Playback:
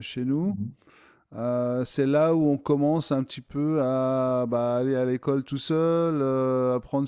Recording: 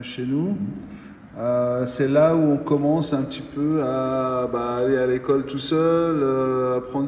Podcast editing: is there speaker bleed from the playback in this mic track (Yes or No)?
Yes